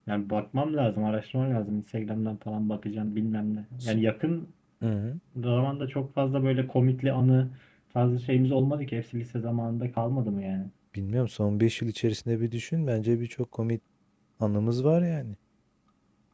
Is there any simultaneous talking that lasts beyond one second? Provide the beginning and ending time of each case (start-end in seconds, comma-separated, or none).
none